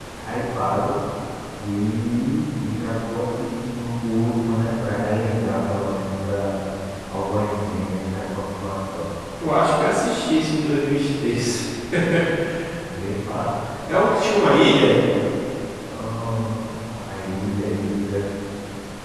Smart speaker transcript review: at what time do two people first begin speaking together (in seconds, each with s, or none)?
none